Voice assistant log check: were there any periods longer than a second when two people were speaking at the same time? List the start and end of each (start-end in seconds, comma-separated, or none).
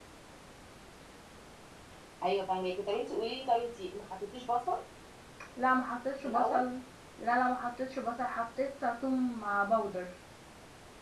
none